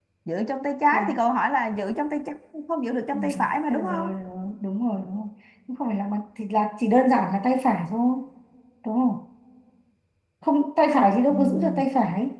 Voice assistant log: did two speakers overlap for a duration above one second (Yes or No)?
No